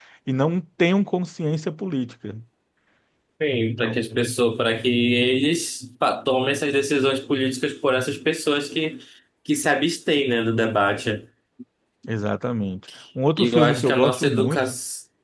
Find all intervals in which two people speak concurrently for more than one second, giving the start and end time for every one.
13.4-14.6

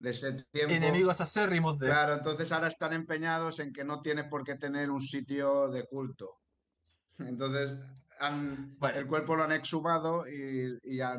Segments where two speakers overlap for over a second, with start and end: none

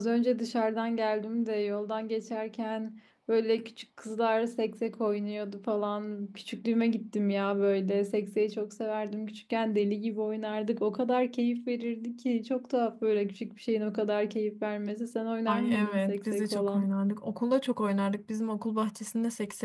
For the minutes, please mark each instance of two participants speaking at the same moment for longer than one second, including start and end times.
15.5-16.9

